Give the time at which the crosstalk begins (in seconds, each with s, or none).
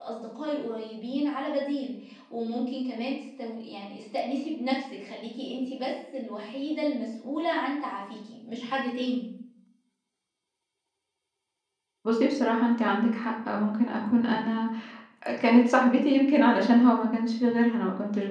none